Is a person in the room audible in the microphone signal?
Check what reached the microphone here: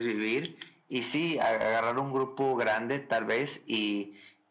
No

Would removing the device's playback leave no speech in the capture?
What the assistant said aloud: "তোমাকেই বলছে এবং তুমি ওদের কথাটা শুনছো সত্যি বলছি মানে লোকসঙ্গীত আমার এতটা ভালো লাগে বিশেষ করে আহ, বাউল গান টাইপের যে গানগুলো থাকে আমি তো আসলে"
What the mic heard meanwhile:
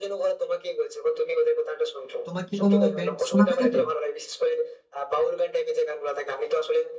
No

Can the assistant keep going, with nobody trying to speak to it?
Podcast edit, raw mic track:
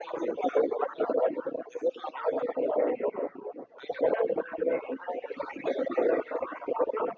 Yes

